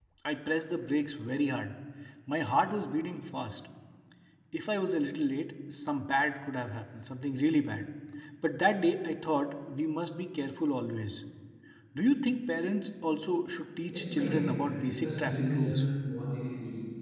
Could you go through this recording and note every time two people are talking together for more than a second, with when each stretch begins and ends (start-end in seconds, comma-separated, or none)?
13.9-15.8